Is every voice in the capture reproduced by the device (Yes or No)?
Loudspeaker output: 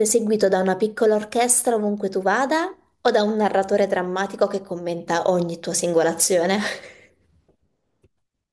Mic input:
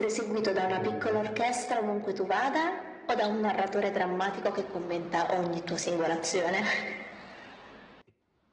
No